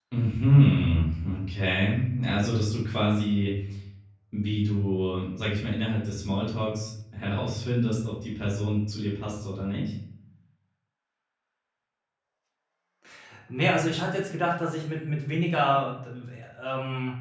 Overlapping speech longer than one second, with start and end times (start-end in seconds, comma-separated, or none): none